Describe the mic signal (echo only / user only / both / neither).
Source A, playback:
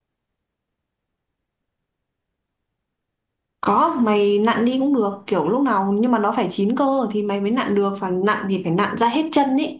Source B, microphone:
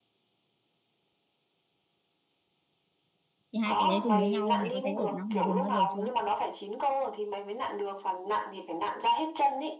both